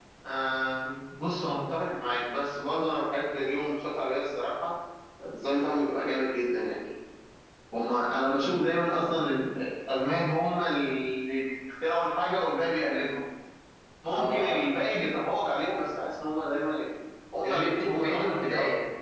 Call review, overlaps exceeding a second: present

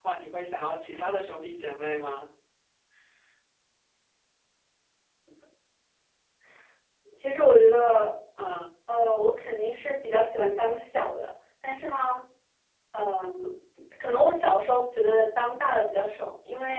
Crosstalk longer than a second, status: none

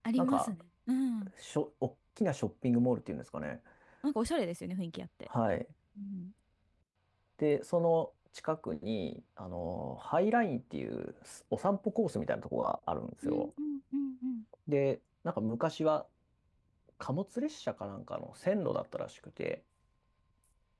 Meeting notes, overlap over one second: none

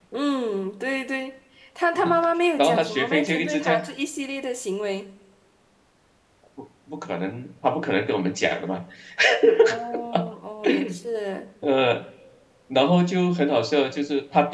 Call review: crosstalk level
present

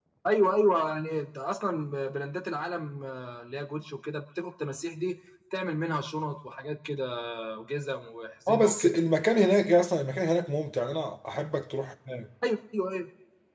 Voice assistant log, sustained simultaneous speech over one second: none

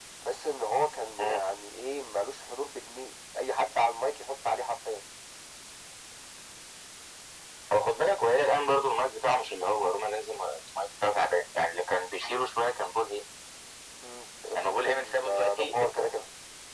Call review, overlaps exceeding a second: present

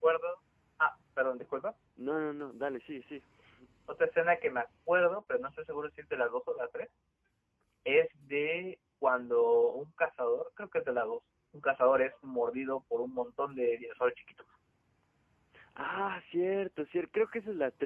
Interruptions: none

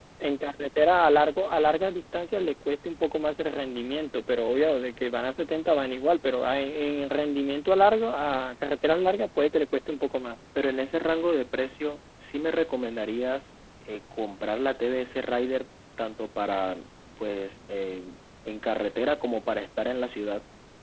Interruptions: none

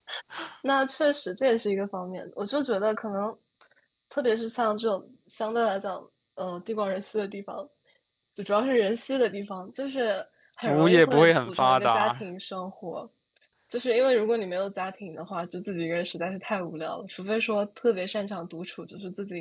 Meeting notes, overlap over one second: present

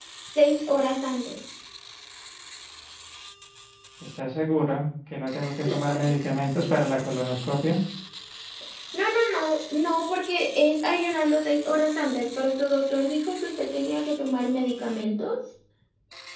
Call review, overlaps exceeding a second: none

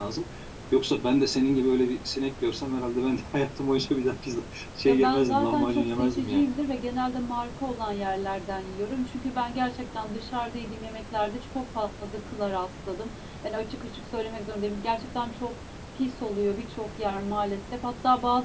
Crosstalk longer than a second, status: present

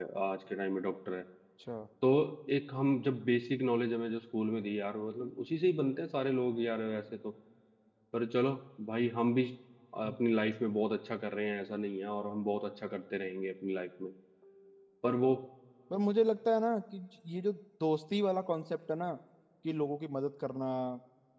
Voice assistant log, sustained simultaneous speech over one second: none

